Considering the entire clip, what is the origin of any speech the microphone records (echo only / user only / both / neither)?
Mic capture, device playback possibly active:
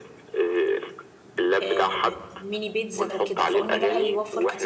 both